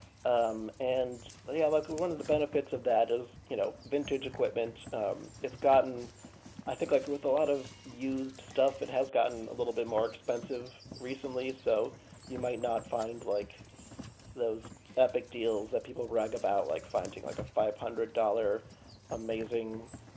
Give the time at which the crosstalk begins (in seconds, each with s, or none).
none